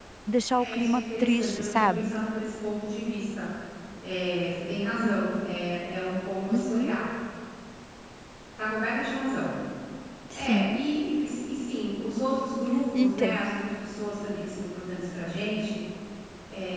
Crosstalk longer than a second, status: present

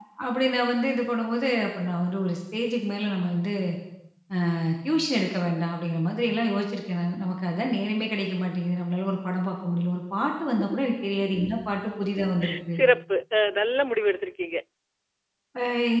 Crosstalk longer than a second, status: none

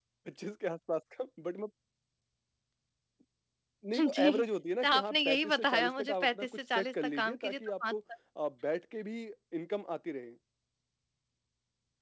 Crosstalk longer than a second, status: present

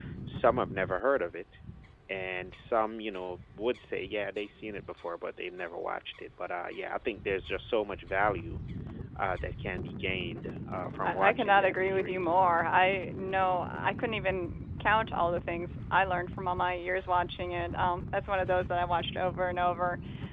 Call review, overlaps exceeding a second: present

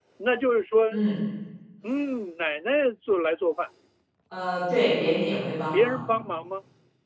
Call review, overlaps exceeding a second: none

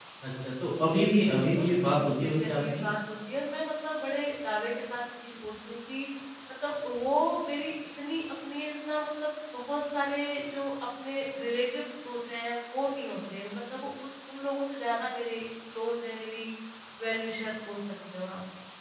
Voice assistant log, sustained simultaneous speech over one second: present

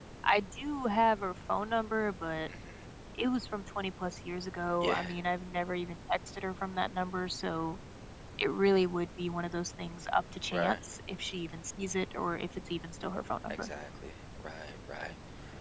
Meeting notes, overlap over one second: none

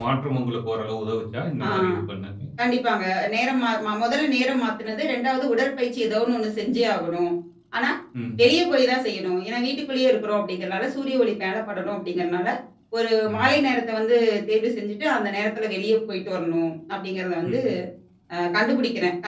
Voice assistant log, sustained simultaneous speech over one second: none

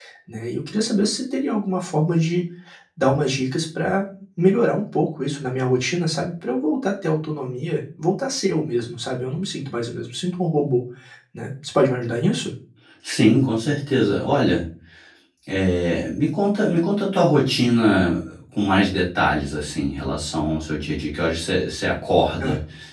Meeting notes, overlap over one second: none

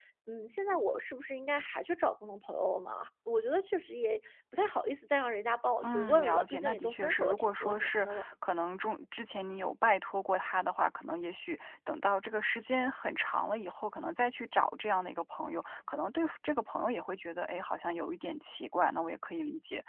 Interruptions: present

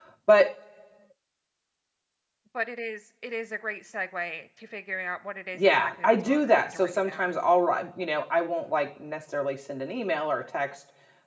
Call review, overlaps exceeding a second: present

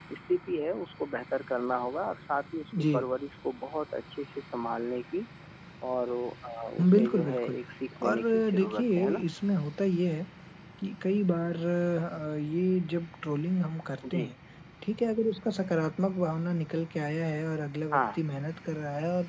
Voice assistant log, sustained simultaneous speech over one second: present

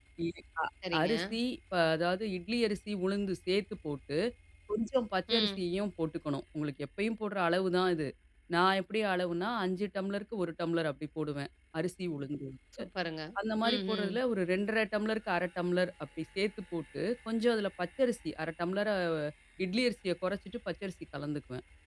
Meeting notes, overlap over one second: none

